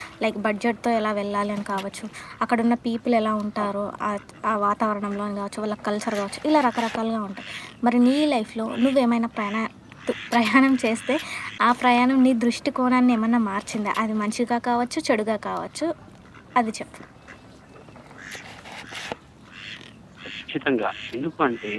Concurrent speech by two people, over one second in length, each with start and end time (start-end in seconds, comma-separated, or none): none